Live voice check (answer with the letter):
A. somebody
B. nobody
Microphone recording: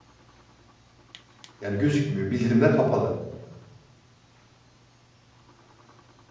A